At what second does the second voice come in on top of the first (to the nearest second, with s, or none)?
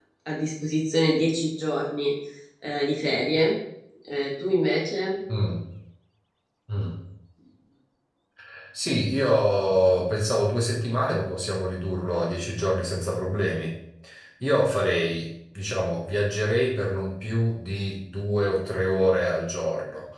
none